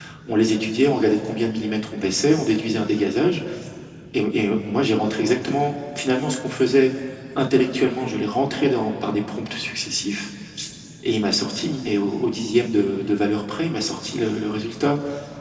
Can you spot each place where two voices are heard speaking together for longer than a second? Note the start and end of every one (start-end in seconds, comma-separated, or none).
none